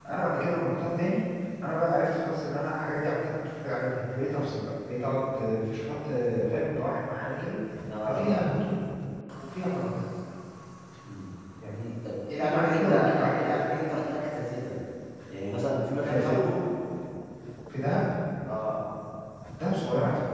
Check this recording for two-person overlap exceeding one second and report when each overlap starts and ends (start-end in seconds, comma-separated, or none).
12.3-13.5